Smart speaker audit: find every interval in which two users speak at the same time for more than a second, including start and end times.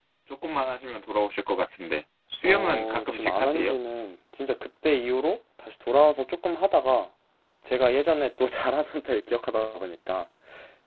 2.4-3.8

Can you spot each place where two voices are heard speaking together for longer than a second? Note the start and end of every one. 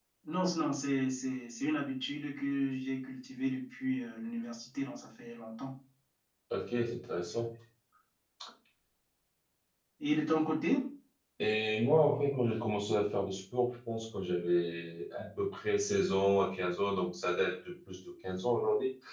none

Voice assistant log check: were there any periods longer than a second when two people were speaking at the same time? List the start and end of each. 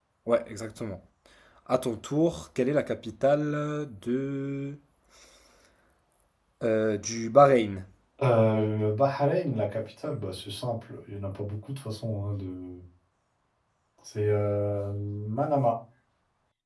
none

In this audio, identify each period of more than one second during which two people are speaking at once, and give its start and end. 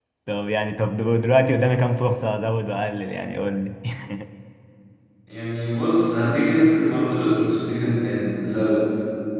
none

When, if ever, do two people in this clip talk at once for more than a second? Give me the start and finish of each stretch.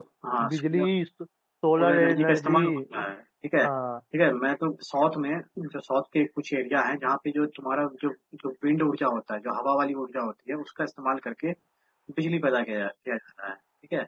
1.8-3.0

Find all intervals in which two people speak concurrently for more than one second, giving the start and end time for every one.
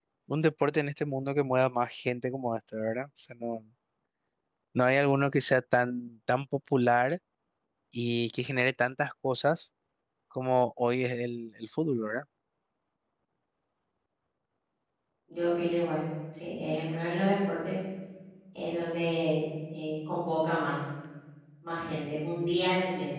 none

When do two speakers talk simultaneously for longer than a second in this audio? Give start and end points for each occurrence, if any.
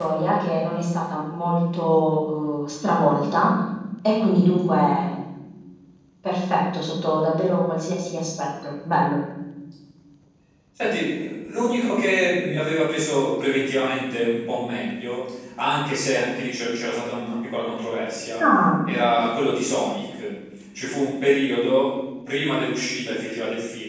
none

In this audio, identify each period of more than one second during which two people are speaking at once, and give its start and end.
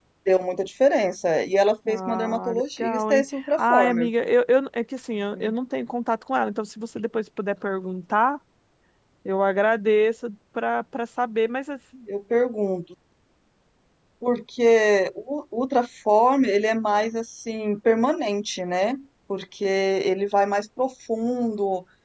1.9-4.1

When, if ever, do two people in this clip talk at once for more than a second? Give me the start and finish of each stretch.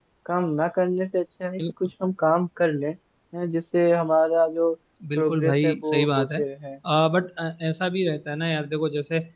5.2-6.4

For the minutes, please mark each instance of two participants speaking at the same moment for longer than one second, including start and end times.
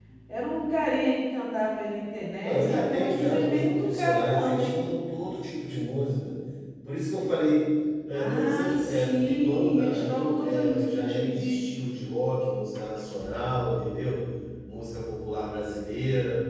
2.4-4.8, 8.1-11.6

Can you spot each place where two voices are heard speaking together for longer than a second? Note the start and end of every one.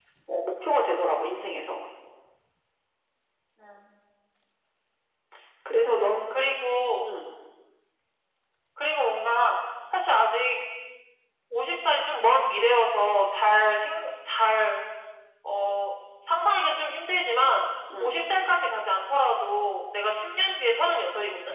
none

